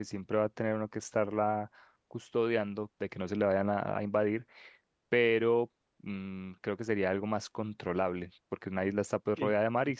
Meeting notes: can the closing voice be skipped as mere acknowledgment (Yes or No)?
Yes